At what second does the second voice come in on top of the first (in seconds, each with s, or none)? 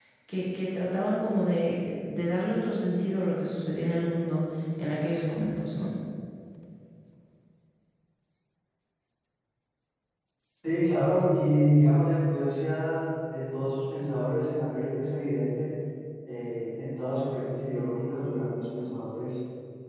none